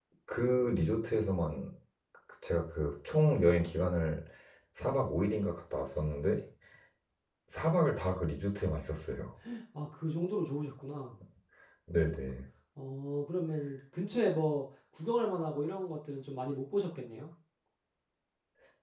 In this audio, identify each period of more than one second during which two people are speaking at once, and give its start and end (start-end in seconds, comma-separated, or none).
none